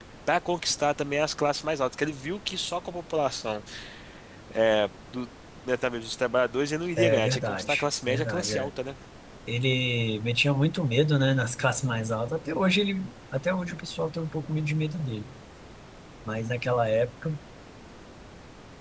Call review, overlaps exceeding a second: present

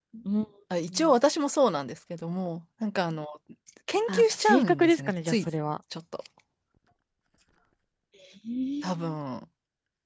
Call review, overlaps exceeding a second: present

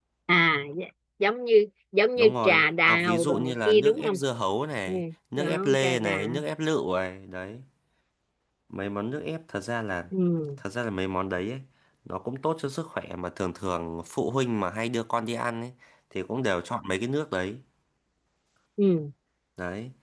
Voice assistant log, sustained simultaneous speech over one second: present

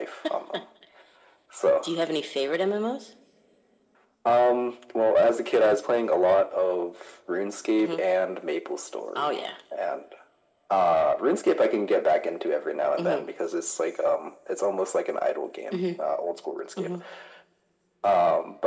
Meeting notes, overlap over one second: none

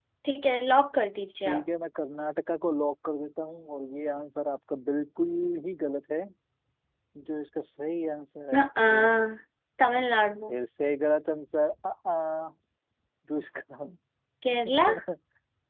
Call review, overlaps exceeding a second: none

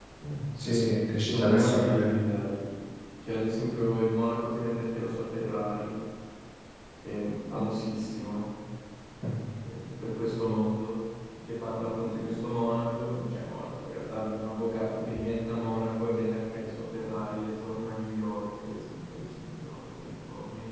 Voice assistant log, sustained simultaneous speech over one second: present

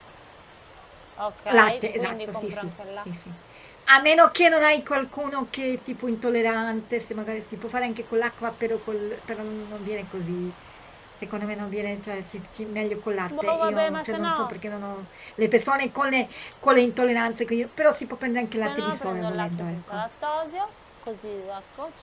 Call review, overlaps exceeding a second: present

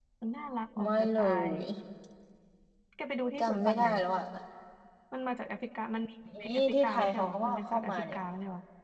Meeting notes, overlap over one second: present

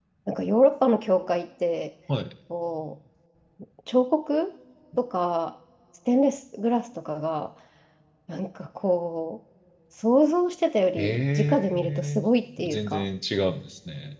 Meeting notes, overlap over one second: present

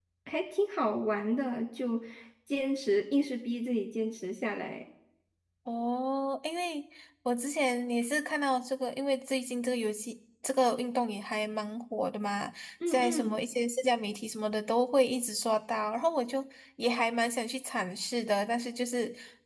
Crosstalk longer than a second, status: none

